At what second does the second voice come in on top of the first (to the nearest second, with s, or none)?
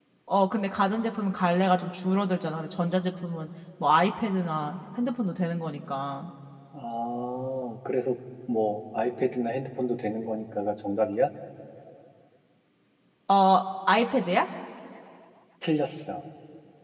none